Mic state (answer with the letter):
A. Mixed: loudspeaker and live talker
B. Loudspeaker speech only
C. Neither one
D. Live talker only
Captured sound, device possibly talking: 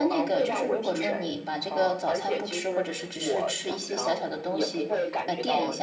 A